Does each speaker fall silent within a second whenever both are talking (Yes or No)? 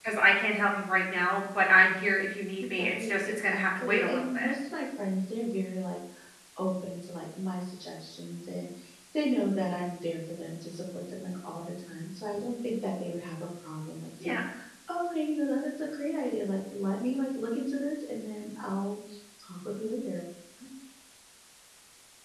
No